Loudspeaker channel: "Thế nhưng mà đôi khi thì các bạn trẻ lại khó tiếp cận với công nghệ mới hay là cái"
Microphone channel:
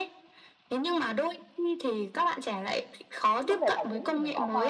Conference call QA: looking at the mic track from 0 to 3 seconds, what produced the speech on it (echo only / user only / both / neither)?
echo only